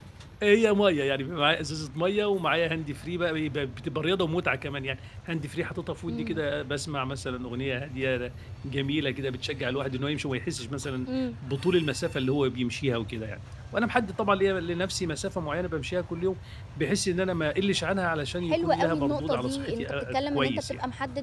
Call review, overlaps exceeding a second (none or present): present